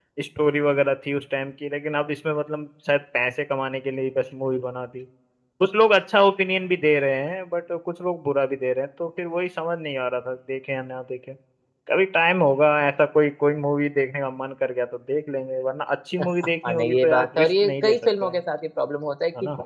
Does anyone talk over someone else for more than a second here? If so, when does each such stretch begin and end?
16.4-18.4

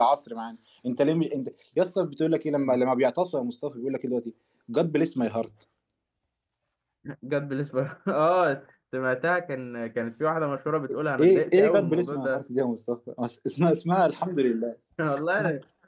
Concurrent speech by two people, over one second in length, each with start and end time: 11.2-12.4

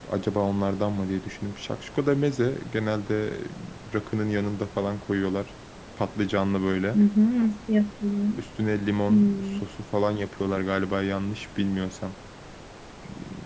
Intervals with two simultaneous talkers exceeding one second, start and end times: none

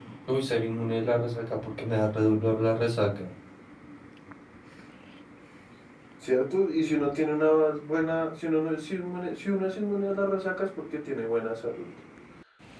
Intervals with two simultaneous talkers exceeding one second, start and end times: none

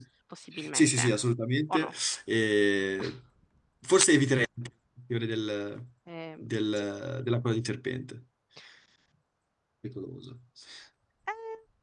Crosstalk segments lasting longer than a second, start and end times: none

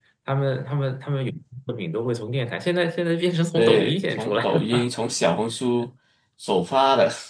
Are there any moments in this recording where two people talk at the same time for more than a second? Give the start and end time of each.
3.6-4.8

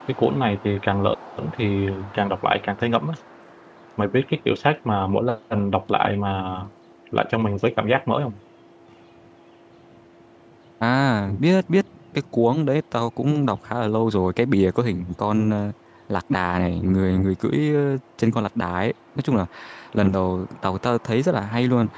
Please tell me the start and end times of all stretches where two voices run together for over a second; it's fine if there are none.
none

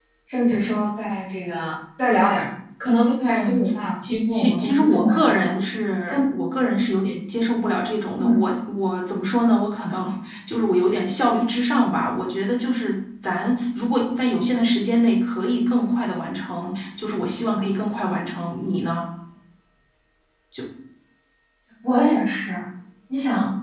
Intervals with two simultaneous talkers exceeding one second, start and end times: 4.1-5.5

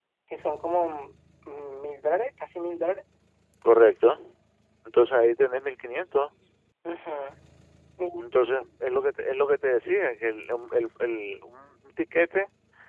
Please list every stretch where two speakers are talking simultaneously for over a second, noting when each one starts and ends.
none

